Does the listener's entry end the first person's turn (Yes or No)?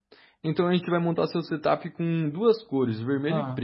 Yes